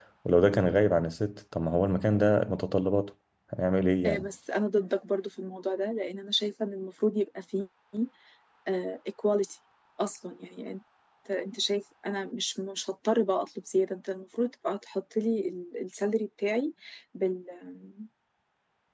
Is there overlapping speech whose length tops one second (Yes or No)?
No